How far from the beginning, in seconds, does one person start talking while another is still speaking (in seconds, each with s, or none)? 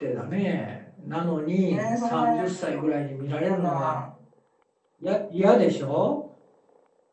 1.7 s